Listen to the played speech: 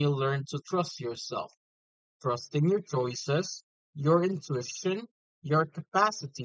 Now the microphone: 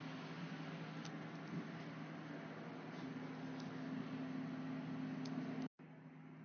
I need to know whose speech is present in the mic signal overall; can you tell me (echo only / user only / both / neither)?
neither